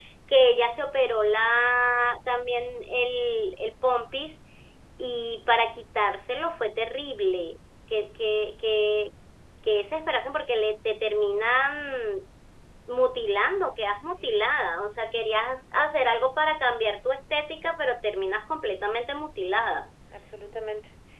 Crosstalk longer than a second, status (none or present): none